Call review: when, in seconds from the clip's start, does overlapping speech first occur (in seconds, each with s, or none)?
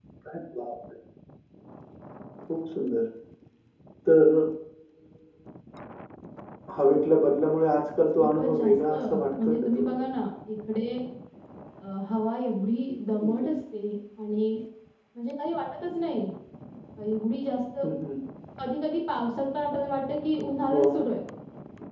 8.2 s